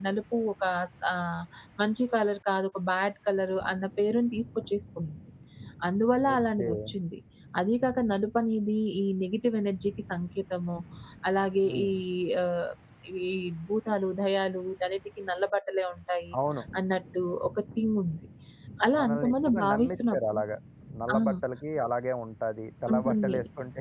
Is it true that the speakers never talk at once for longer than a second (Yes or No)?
No